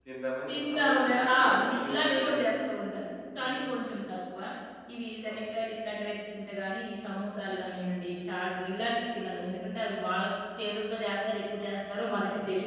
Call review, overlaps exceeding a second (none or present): present